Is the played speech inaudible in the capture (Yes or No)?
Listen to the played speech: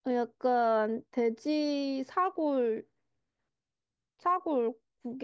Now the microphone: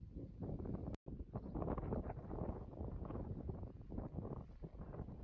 Yes